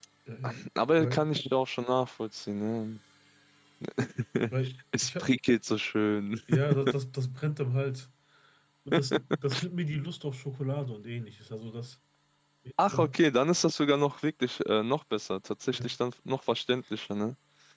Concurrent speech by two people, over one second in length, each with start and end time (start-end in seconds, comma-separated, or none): none